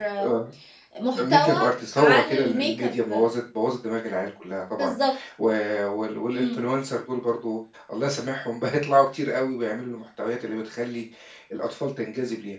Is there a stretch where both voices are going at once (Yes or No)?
Yes